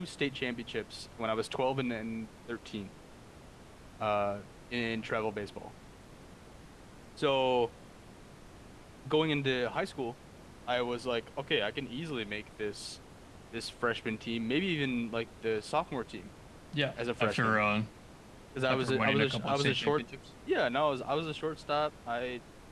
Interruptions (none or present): present